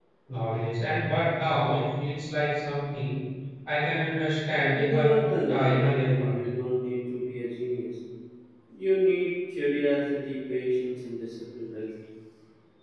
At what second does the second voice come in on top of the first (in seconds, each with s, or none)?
4.8 s